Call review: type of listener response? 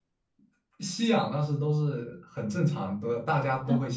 listening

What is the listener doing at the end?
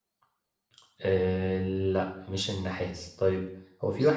listening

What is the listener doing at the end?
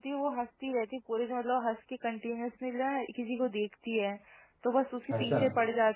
listening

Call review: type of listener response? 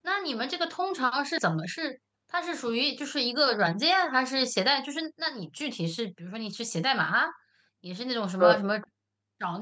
listening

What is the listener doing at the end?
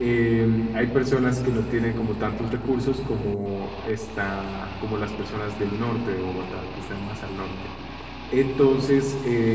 listening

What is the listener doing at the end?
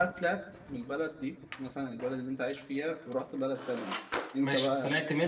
taking over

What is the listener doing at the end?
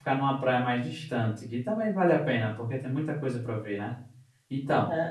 taking over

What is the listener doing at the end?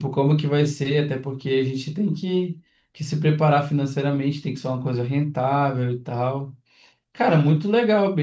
listening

